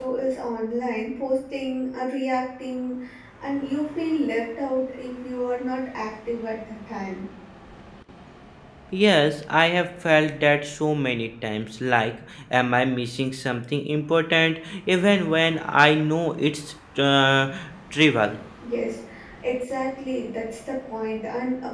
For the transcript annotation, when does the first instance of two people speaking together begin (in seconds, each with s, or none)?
none